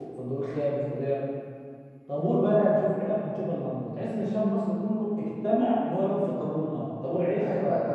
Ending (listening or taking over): taking over